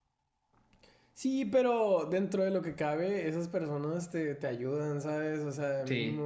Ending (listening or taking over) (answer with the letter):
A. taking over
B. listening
B